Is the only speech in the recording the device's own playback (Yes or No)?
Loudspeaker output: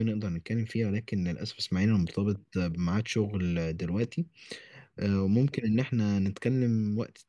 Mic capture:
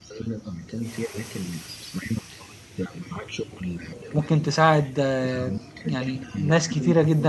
No